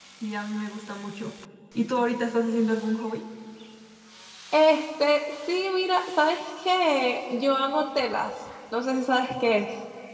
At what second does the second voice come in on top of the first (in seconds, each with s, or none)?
none